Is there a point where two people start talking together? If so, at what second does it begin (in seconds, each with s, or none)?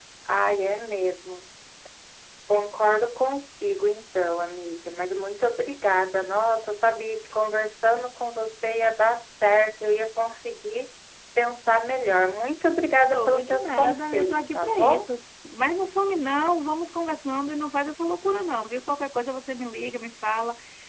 13.1 s